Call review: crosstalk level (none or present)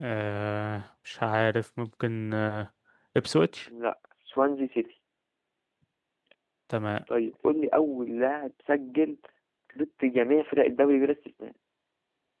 none